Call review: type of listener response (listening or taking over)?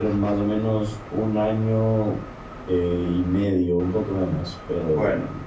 listening